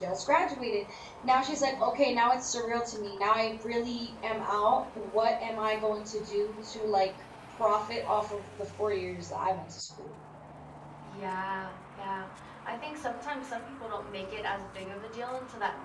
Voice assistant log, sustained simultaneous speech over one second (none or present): none